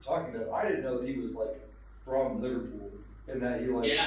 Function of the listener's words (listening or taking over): listening